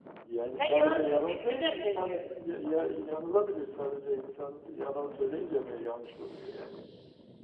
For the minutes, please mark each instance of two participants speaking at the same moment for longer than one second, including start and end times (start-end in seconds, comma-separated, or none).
0.6-2.2